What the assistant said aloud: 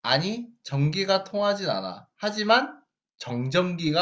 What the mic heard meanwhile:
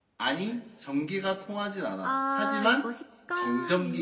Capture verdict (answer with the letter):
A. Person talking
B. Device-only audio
A